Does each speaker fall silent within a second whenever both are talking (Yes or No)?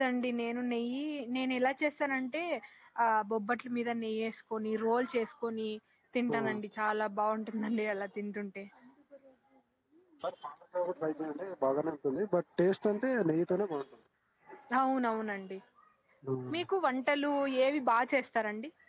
Yes